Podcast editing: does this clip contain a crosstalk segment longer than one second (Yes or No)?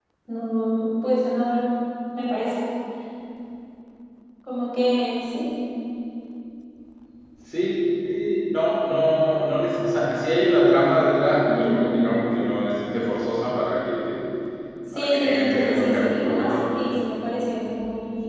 Yes